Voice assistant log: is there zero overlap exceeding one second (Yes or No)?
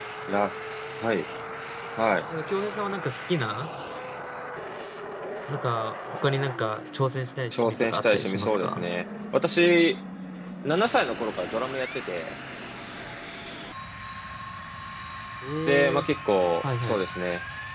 No